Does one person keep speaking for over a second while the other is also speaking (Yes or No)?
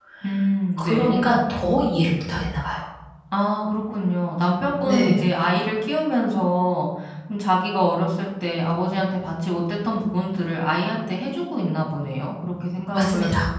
No